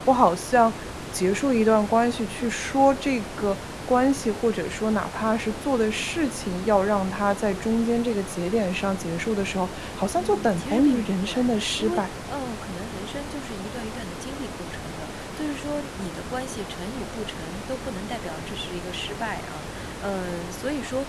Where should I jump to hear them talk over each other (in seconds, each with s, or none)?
10.2 s